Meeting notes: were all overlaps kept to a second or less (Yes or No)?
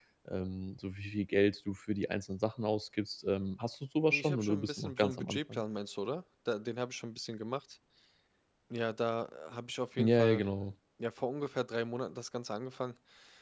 No